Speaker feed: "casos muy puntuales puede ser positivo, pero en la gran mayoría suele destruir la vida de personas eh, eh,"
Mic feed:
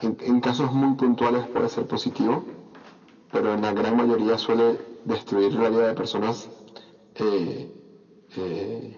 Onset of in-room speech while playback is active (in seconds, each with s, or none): none